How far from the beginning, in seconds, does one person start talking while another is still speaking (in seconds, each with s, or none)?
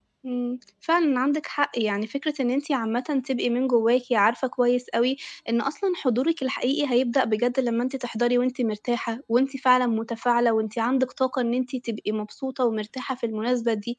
none